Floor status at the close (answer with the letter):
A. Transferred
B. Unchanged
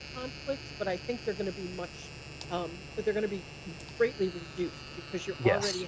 B